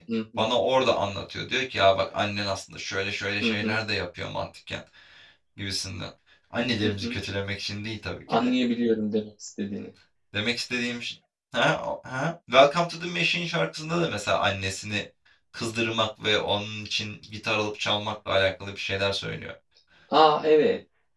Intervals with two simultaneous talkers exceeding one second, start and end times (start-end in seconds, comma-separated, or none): none